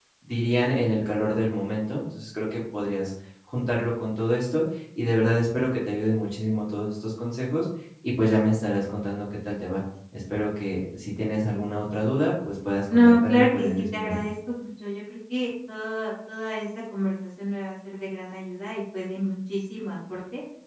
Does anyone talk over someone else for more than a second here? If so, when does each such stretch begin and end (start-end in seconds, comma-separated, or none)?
12.9-14.3